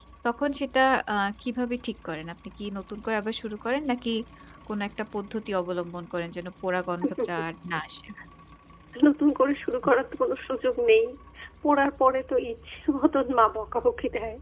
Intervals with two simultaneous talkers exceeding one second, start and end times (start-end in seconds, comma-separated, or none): none